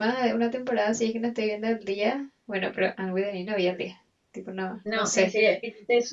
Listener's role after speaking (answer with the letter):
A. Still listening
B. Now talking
B